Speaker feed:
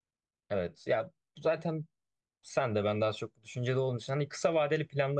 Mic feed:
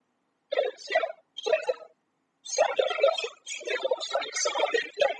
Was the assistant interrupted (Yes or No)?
No